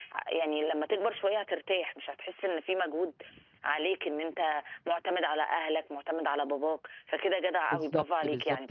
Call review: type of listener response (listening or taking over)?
taking over